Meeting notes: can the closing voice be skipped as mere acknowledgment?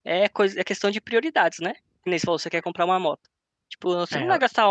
Yes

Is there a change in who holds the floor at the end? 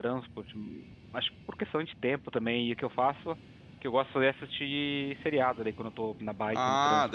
Yes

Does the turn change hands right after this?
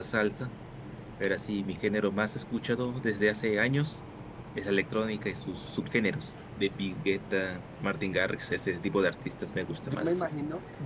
Yes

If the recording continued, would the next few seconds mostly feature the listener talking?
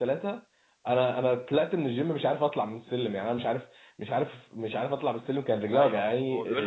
Yes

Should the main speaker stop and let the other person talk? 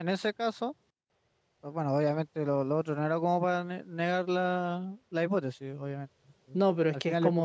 Yes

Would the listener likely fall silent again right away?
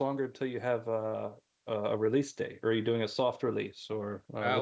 No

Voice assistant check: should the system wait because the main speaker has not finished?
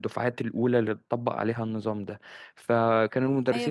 No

